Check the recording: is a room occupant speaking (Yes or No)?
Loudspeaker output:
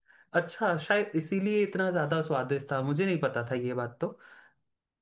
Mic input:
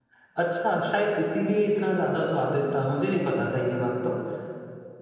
No